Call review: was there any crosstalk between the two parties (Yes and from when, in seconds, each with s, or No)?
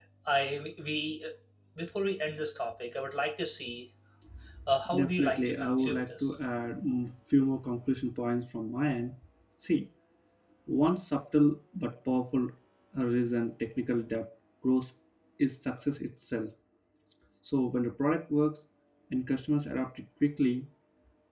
Yes, from 4.9 s